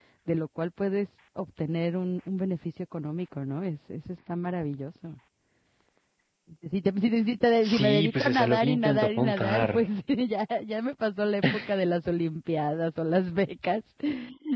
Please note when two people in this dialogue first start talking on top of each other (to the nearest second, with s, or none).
8 s